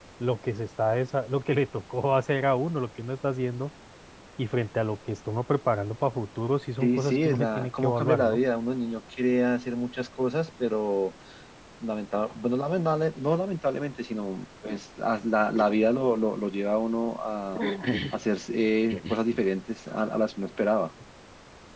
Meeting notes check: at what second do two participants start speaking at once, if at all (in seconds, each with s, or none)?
6.8 s